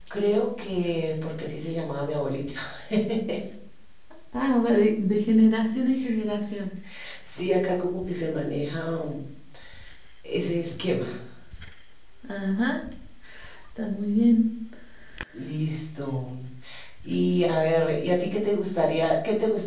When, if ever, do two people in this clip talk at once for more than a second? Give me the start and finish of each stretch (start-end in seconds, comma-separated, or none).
none